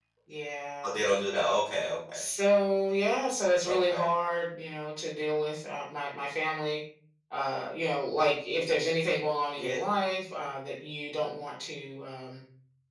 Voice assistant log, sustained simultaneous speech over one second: none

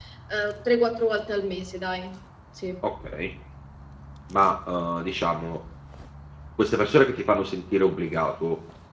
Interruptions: none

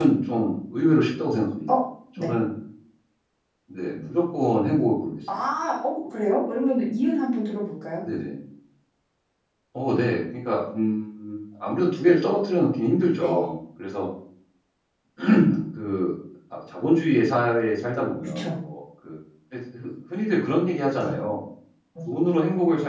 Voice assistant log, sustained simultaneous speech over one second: none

